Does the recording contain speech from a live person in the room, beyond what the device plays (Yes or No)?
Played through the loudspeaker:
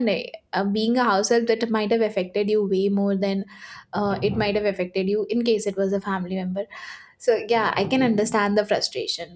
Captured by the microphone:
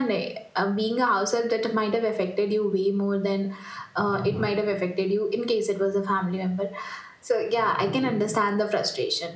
No